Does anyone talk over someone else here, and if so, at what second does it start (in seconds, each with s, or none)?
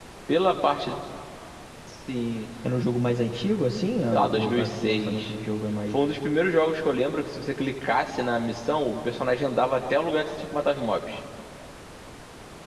4.1 s